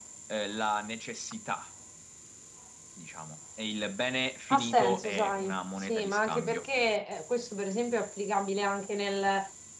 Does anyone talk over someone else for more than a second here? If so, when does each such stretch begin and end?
4.5-6.7

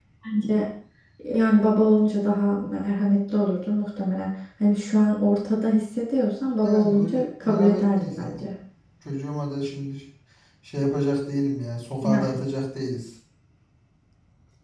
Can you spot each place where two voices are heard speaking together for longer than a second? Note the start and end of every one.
6.6-8.4

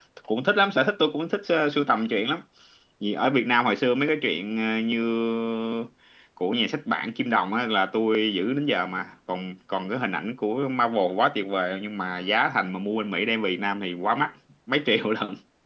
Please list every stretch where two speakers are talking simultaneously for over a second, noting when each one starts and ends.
none

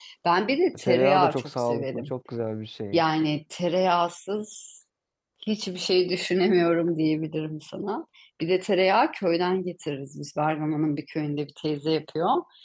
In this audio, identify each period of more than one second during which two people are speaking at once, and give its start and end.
0.8-2.0

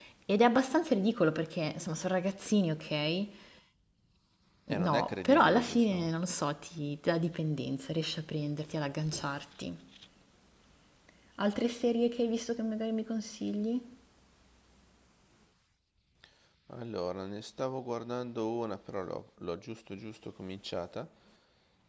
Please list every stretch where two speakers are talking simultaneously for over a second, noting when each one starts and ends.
4.8-6.1

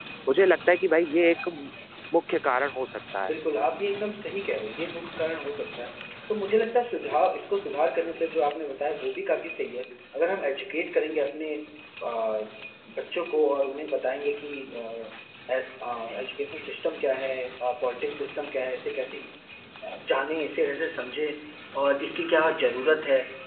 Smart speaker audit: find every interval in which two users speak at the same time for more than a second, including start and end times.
none

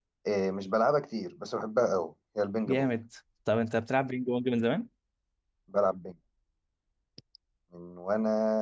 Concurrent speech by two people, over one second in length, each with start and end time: none

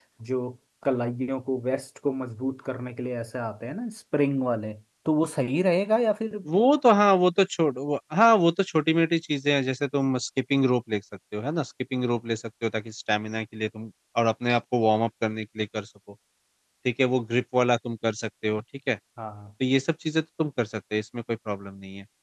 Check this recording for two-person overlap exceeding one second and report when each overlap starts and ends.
none

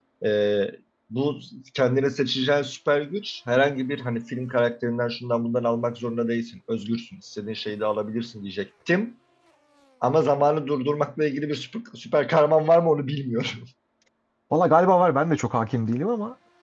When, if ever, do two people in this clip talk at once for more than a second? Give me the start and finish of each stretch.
none

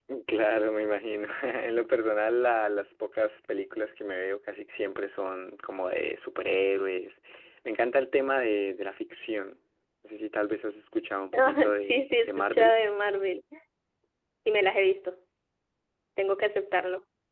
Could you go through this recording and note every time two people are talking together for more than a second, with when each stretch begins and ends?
11.3-12.8

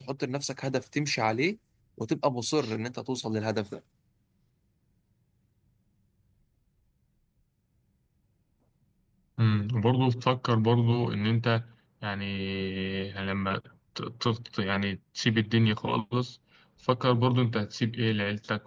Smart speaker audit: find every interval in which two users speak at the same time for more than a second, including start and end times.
none

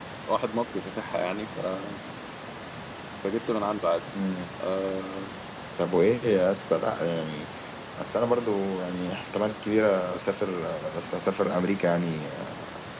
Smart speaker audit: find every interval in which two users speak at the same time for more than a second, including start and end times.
none

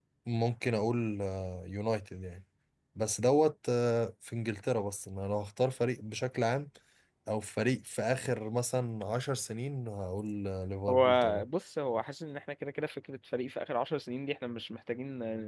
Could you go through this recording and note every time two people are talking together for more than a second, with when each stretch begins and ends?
none

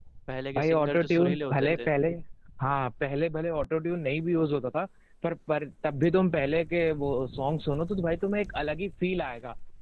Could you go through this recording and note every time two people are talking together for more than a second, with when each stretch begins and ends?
0.5-1.9

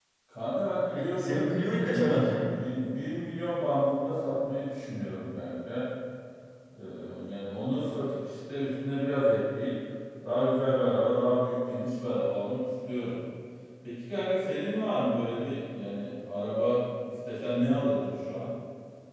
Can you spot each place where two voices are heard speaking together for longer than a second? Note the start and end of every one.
0.9-2.4

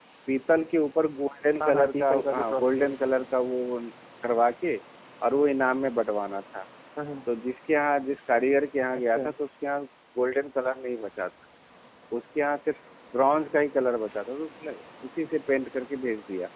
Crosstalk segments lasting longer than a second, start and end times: 1.6-2.9

